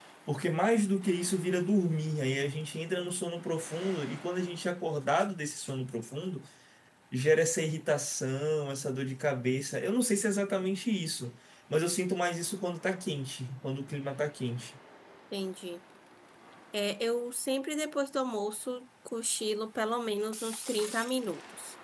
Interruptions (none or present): none